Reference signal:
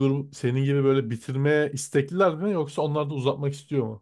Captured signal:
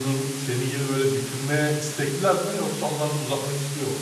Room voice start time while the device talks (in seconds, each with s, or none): none